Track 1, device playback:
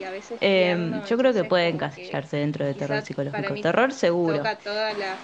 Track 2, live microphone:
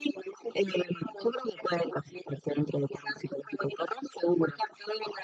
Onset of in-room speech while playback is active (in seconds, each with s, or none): none